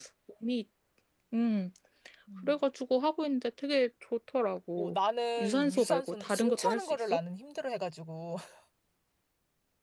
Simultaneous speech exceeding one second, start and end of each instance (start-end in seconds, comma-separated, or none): 5.4-7.2